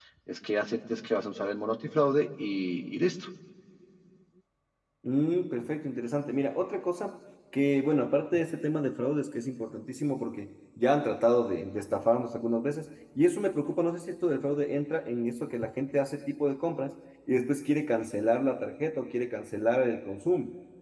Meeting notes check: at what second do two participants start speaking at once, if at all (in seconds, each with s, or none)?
none